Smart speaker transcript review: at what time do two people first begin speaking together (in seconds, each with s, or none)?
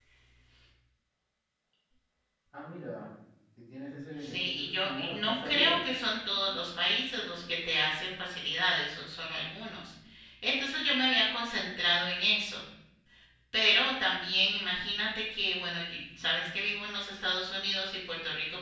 4.2 s